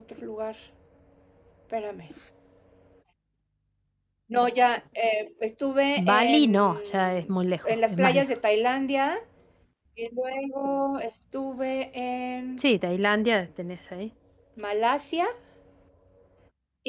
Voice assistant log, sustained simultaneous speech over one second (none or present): present